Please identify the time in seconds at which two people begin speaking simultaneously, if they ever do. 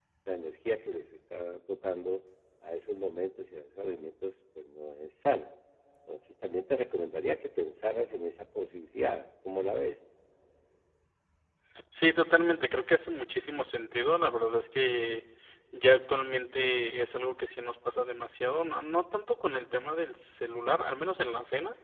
none

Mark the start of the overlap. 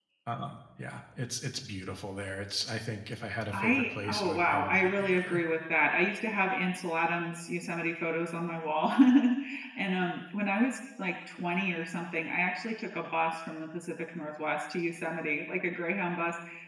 3.5 s

